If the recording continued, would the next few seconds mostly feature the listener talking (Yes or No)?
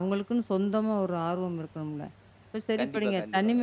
No